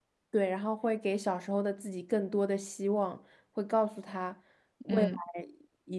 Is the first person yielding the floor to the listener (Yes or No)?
No